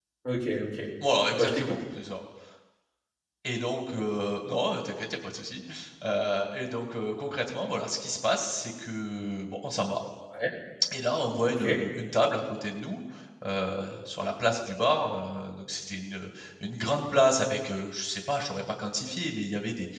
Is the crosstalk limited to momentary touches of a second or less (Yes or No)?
Yes